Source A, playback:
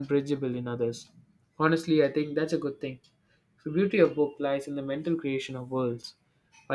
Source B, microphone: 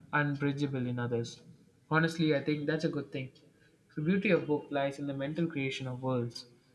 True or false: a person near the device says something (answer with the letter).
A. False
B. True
A